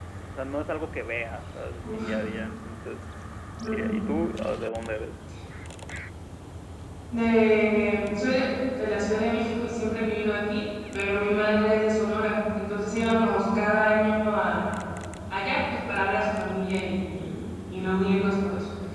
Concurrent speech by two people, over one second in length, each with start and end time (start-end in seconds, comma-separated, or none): none